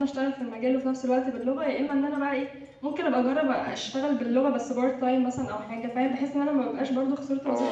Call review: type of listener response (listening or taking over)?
taking over